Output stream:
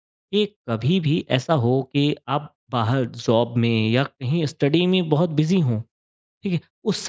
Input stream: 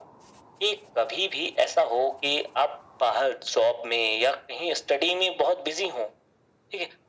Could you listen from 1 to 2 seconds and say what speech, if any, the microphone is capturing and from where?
echo only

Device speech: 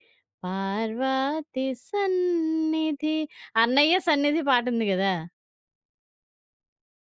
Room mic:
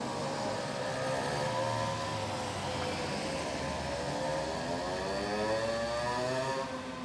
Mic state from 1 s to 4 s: neither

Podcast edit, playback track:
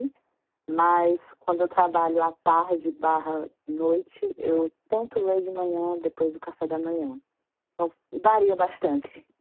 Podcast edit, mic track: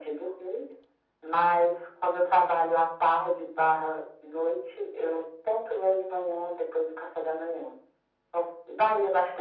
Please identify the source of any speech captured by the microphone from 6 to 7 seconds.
echo only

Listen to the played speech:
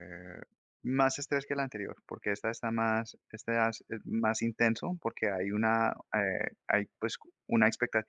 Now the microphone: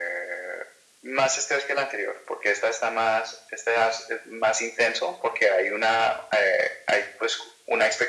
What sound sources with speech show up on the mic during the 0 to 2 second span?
echo only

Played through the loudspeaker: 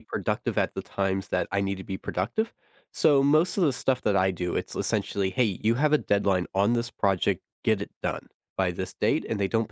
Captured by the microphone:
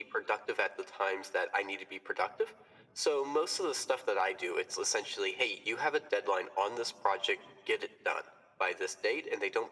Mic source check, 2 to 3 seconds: echo only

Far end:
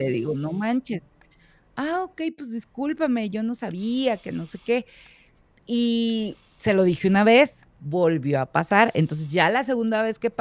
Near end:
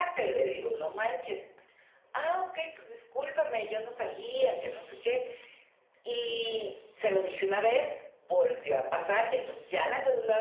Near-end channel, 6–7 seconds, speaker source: echo only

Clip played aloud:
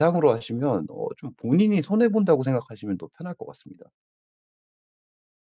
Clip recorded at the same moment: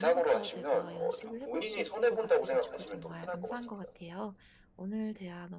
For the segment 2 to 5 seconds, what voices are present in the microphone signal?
both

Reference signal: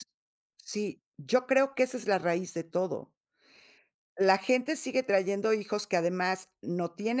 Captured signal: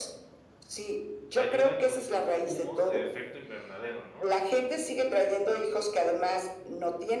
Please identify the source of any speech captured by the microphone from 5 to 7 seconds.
echo only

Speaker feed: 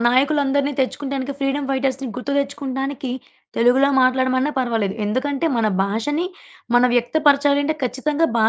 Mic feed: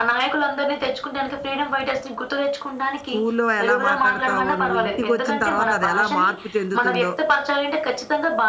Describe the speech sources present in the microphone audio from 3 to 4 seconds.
both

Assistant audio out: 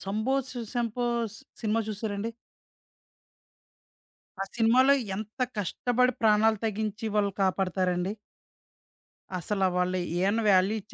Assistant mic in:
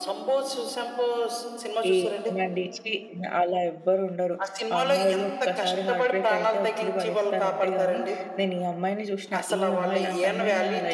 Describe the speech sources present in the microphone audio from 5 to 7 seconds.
both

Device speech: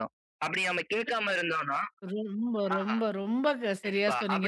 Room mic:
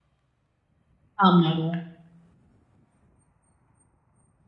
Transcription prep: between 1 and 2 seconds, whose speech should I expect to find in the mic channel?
user only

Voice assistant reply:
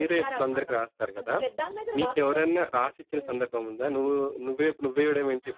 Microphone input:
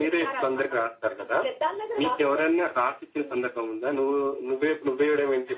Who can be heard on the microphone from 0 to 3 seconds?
echo only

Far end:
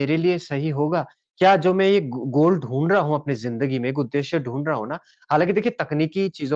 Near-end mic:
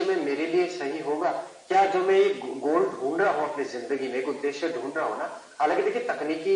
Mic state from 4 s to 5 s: echo only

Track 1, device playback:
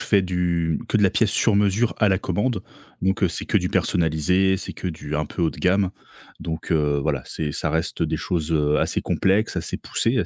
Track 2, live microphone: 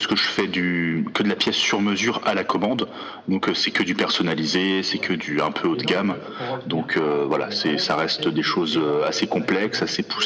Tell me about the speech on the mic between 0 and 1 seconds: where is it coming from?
echo only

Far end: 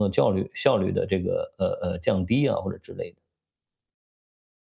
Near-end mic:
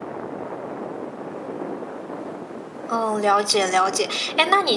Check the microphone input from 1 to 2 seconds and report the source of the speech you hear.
neither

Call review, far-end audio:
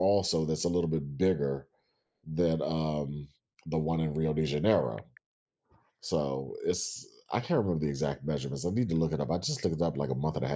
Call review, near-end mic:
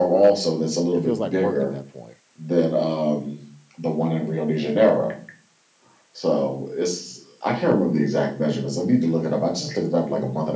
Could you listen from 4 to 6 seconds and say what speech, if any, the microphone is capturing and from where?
echo only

